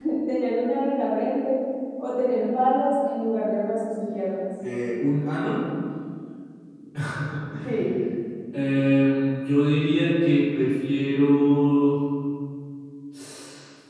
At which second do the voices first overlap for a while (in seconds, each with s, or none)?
none